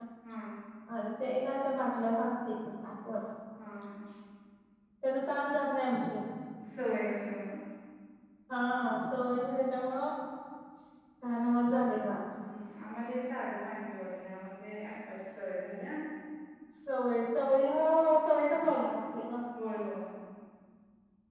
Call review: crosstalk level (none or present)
none